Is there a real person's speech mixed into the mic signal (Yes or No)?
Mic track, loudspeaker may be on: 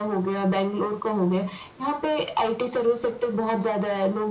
No